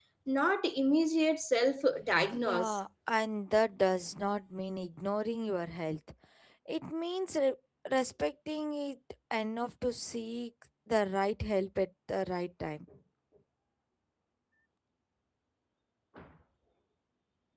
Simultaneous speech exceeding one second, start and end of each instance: none

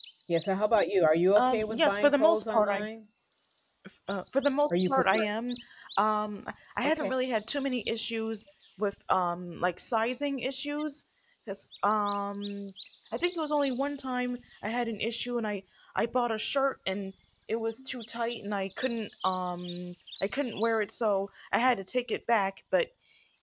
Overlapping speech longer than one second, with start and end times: 1.4-2.8

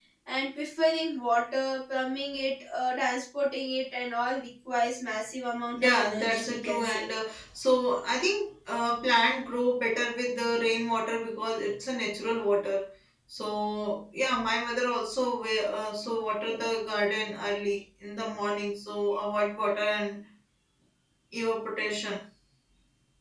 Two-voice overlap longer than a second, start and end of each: 5.7-7.1

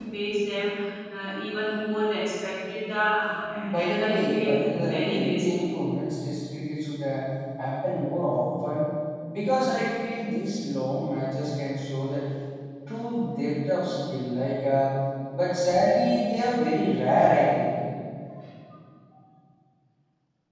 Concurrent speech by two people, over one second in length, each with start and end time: 3.8-5.7

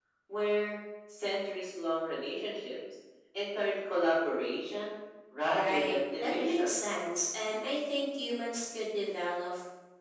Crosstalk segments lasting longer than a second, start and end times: 5.5-6.9

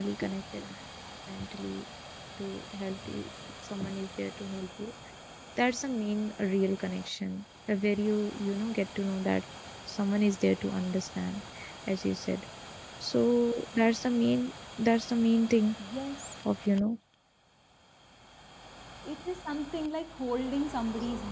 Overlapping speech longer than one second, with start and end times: none

